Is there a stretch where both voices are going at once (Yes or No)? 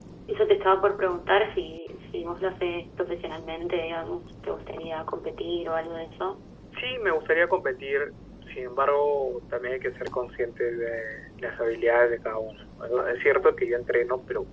No